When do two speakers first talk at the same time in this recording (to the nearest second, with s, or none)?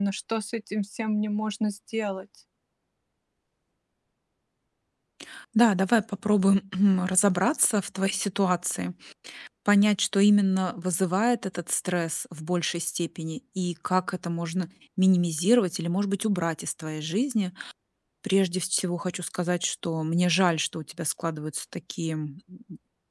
none